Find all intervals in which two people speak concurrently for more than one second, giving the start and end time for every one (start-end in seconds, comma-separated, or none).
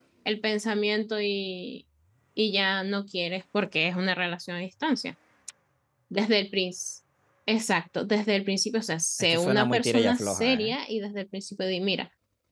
9.2-10.8